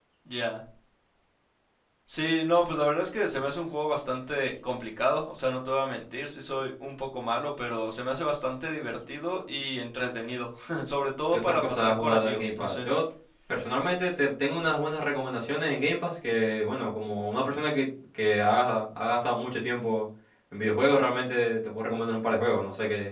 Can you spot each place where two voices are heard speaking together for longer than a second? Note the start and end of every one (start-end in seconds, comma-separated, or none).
11.4-12.9